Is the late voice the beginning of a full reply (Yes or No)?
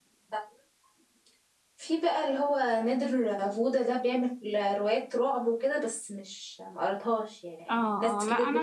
Yes